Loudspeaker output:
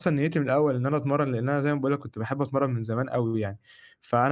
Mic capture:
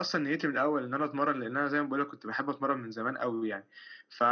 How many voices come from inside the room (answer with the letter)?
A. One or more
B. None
B